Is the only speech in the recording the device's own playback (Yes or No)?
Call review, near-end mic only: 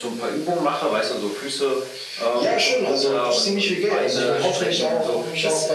Yes